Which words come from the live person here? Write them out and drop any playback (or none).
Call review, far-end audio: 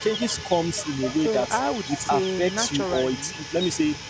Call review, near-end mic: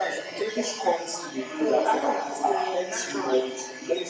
none